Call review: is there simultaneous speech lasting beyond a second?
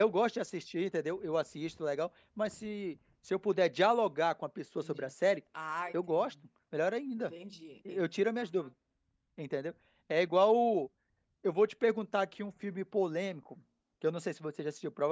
No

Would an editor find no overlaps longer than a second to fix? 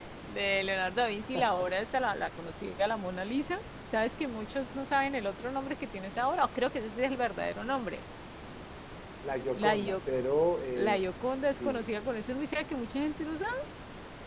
Yes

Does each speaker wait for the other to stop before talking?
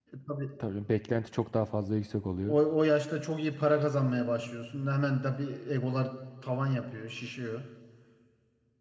Yes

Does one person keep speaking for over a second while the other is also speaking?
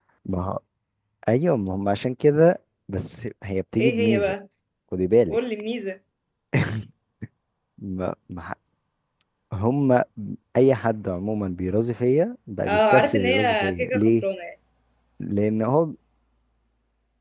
Yes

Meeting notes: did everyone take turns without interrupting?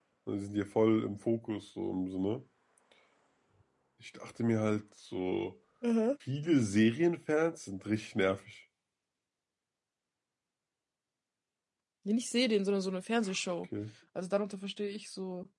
Yes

